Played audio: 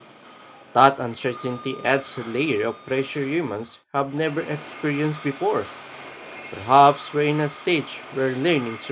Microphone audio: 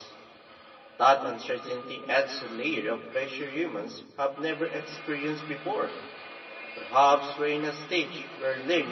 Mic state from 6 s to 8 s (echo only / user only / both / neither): echo only